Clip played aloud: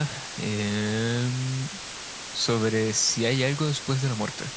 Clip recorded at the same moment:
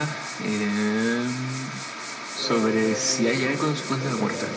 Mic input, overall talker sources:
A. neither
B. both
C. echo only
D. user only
B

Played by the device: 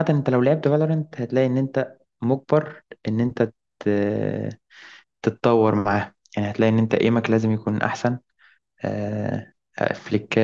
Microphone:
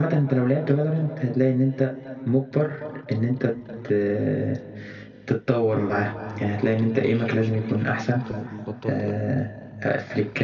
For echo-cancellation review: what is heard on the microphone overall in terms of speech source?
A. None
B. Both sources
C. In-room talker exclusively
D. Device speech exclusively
B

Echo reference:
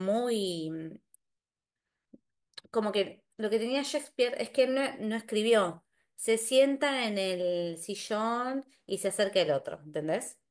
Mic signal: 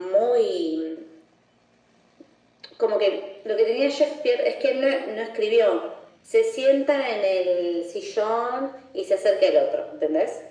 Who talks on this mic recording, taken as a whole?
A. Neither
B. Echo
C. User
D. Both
B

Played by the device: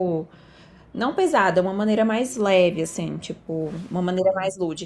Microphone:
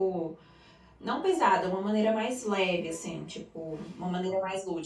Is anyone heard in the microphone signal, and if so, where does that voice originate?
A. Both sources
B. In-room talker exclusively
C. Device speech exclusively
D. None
C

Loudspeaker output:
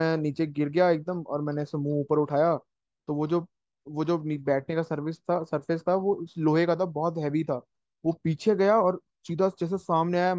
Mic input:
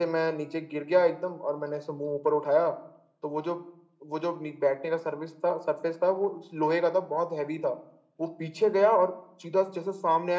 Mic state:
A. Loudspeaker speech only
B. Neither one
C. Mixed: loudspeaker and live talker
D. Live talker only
A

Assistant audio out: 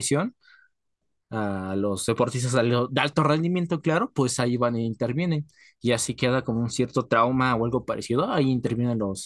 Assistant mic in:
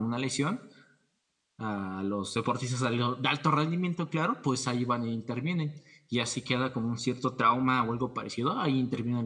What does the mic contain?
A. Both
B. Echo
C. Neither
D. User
B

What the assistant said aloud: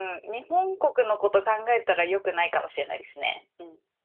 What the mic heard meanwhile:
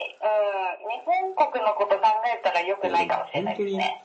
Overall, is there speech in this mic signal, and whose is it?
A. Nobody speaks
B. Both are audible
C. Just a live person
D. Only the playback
B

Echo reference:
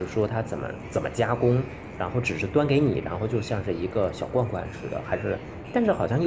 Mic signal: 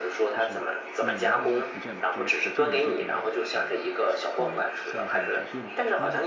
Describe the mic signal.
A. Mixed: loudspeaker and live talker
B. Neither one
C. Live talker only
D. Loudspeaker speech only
A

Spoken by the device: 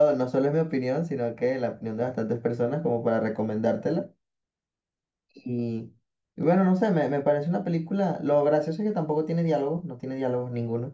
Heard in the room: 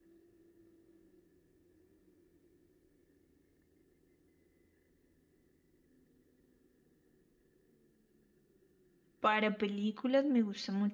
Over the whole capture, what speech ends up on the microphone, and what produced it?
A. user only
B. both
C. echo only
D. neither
A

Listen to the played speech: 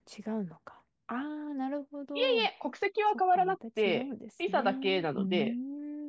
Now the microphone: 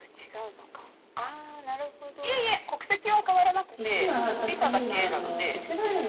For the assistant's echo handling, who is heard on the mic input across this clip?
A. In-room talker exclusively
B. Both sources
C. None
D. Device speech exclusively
B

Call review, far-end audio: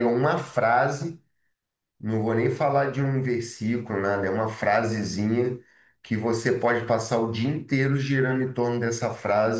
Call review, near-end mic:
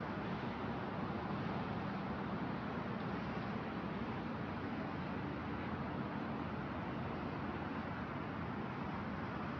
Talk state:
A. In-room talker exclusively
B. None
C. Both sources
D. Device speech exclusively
B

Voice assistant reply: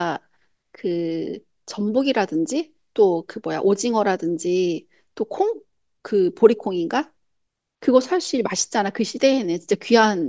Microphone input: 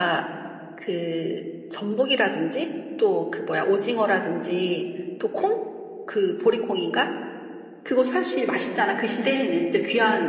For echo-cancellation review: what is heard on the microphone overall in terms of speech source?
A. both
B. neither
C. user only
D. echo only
D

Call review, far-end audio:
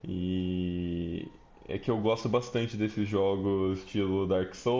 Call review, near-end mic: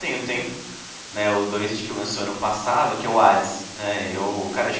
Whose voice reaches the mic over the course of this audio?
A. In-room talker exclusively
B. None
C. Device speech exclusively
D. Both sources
A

